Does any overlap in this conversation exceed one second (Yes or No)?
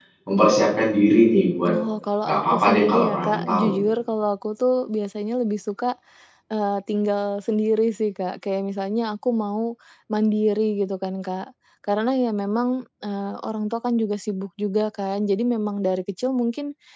Yes